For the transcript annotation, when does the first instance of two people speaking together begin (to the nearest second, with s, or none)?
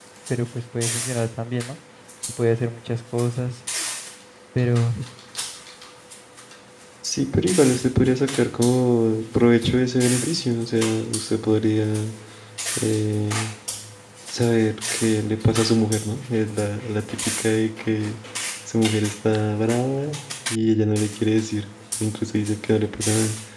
none